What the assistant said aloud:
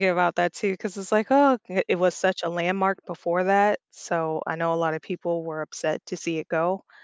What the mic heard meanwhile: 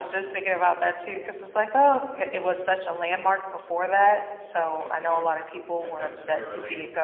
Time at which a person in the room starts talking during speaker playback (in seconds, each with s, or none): 4.5 s